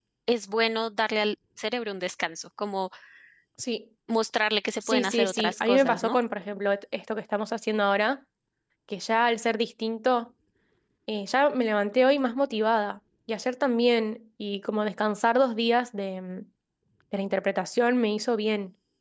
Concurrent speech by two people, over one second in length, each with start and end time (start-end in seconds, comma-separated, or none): 4.9-6.2